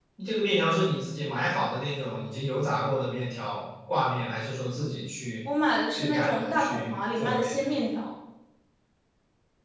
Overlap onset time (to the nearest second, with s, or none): 6 s